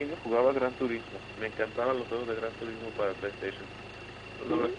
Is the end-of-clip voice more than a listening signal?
Yes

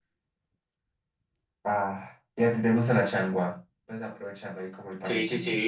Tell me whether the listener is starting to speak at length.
Yes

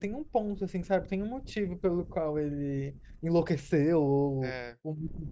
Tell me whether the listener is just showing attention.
Yes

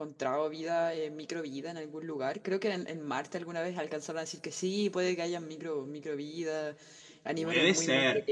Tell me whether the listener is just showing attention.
Yes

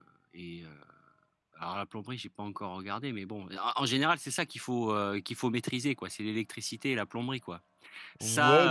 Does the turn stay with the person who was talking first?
No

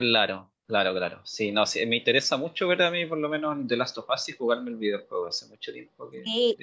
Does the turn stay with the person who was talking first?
No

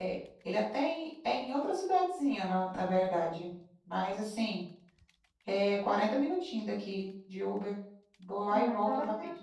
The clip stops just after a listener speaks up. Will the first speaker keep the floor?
No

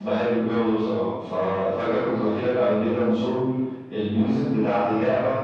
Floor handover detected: No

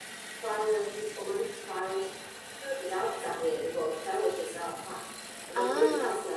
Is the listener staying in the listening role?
Yes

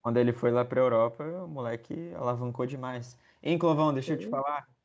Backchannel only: Yes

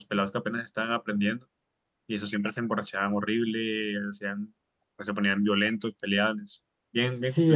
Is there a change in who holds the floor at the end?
Yes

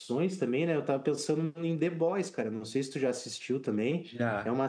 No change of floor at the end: Yes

